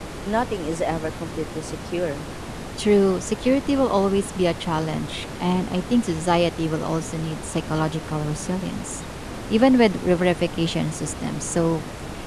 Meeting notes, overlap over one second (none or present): none